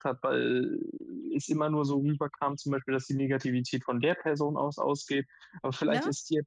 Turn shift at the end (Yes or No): No